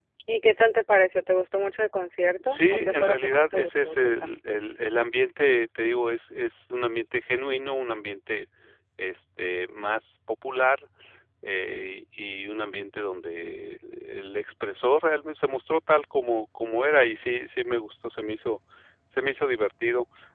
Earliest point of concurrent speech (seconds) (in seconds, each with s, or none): 2.4 s